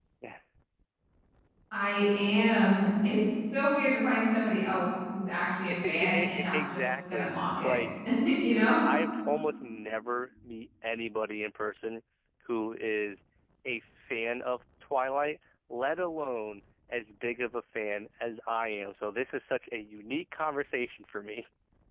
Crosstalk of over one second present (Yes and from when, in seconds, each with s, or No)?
Yes, from 5.8 s